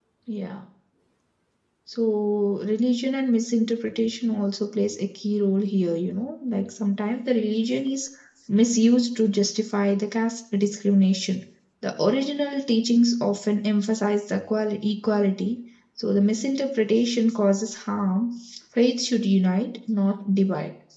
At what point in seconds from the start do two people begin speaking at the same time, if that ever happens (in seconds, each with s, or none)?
none